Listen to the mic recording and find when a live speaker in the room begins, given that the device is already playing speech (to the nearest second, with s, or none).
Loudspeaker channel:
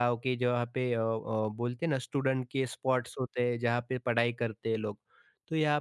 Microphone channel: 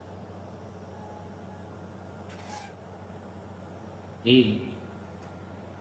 4 s